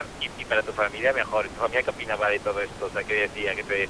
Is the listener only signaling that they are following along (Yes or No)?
No